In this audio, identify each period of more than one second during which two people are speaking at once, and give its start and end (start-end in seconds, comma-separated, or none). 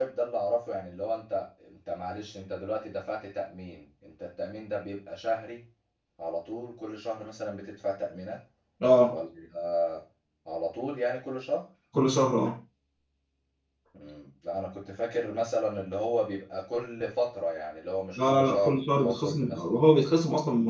18.2-19.9